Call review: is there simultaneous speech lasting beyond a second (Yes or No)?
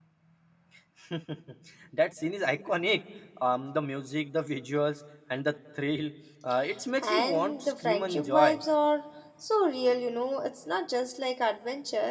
Yes